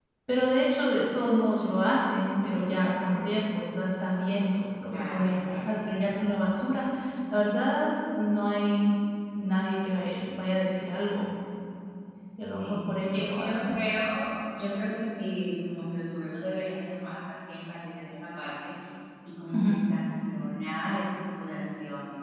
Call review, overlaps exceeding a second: present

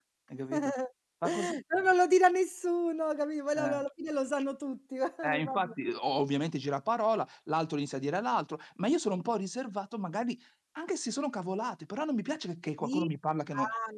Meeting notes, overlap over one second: none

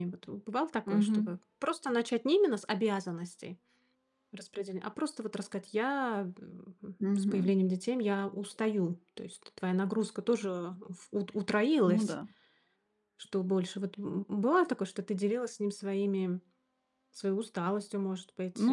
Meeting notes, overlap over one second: none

